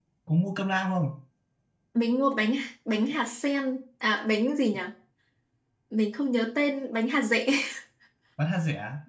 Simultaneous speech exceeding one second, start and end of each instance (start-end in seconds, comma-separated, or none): none